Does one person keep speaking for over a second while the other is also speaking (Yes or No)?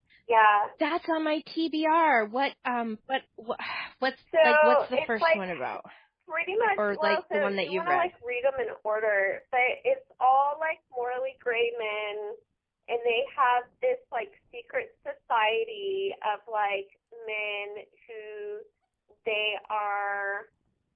Yes